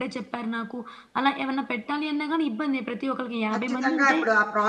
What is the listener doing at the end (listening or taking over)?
taking over